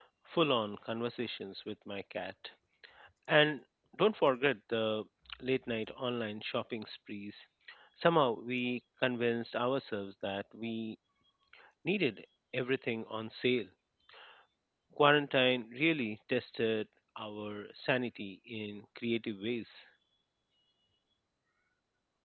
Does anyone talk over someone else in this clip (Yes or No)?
No